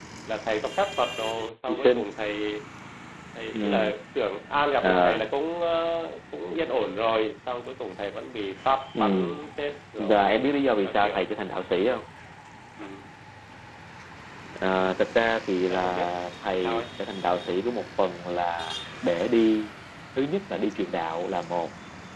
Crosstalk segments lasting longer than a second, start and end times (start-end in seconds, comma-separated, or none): 10.0-11.2